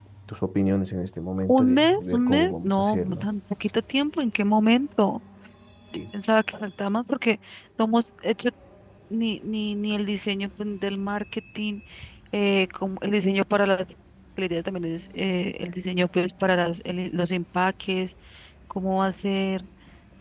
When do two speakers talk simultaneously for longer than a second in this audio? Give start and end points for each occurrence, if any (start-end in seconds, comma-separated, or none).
1.5-3.3